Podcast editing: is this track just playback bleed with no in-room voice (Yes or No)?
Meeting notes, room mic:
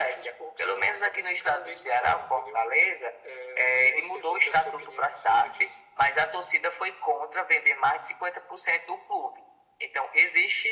Yes